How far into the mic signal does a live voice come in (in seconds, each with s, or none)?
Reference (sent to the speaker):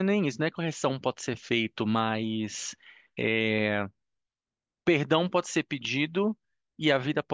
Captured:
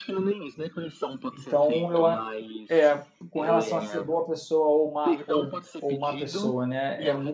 1.3 s